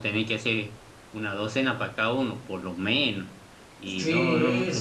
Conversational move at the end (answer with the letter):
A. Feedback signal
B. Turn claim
B